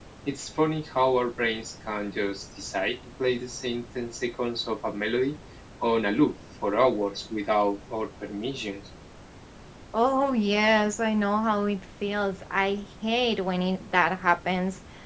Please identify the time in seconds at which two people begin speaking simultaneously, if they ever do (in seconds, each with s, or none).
none